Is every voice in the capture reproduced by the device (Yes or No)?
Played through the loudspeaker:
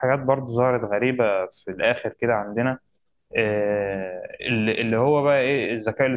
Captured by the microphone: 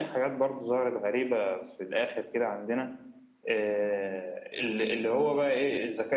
Yes